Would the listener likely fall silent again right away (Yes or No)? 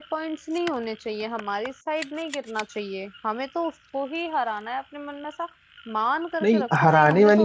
No